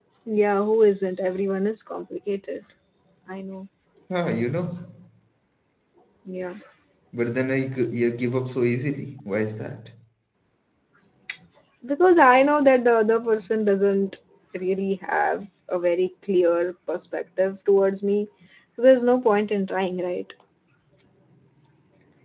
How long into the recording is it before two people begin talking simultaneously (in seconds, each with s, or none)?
none